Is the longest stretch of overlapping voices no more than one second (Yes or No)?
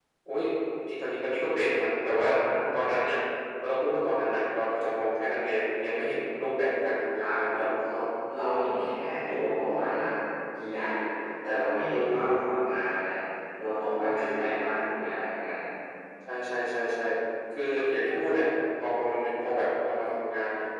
Yes